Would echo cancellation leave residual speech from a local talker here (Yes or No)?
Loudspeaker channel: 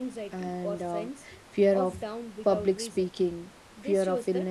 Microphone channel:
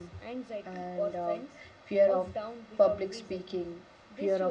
No